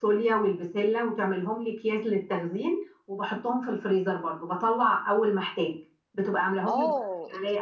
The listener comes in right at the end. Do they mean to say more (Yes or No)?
Yes